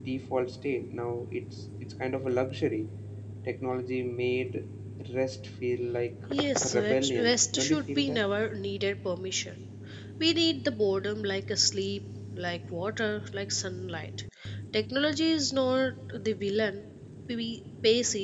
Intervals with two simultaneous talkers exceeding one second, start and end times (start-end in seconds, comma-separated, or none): 6.6-8.2